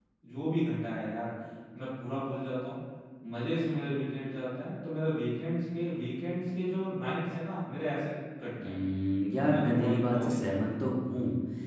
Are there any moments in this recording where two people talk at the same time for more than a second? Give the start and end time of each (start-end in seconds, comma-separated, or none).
9.4-10.9